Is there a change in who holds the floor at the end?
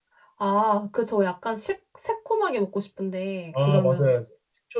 Yes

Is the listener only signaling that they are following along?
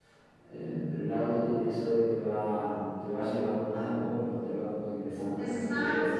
No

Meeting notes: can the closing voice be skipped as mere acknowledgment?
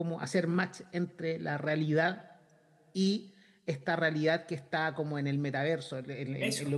Yes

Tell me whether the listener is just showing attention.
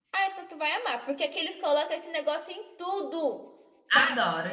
No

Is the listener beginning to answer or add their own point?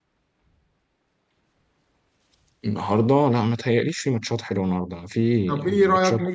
Yes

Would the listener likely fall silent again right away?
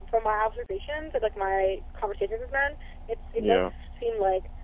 Yes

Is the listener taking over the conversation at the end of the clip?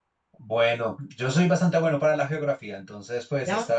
No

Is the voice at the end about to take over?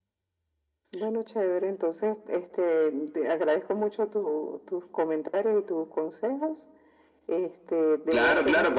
Yes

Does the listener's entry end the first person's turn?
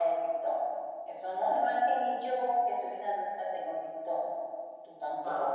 No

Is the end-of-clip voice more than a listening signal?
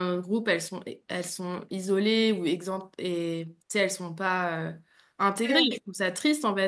No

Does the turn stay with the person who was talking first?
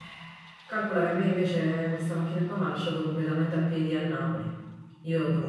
Yes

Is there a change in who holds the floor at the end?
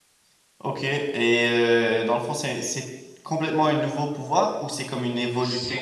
Yes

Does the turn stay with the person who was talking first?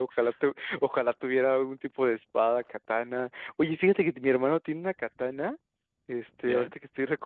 Yes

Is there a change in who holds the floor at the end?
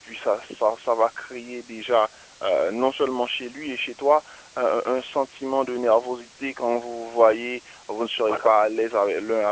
No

